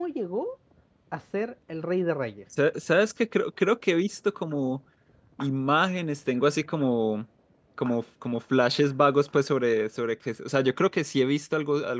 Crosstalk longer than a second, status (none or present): none